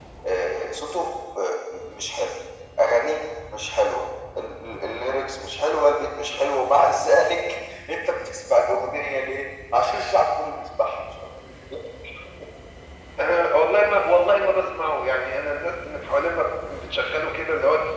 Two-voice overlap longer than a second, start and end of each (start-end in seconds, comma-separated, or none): none